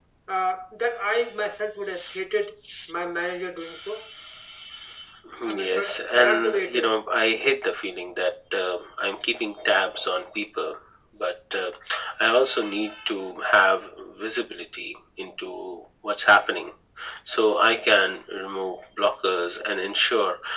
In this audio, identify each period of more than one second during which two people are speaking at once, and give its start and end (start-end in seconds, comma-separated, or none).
5.5-6.9